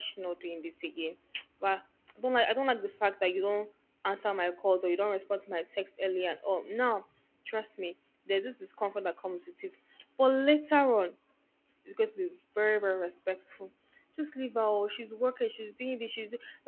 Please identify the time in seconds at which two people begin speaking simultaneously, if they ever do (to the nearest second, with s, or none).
none